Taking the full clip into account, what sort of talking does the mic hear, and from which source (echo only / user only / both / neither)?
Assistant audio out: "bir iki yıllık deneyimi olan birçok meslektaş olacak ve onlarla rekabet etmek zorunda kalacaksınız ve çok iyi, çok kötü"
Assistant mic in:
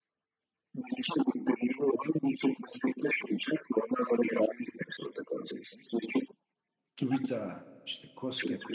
both